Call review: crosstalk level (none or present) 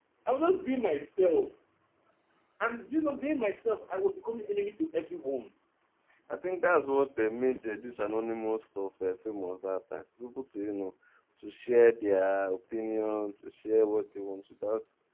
none